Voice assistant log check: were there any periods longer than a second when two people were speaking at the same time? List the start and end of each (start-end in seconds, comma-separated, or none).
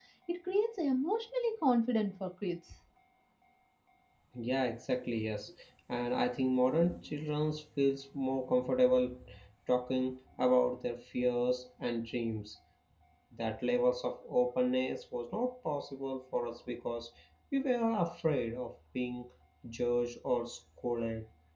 none